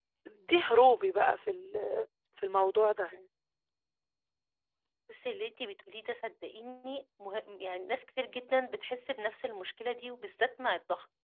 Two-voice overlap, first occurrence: none

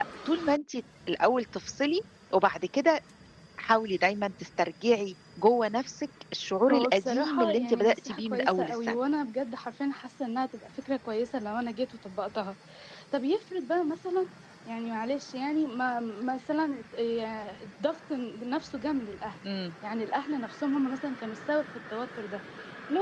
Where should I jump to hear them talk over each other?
7 s

